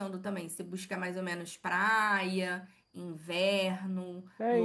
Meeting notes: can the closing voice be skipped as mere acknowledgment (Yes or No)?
No